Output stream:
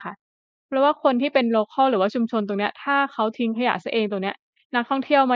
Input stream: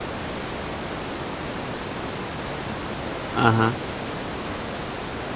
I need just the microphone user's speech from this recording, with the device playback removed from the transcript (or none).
อะฮะ